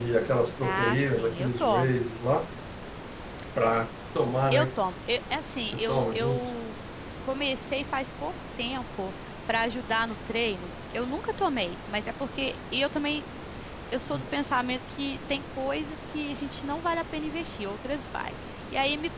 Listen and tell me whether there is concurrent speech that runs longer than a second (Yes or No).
Yes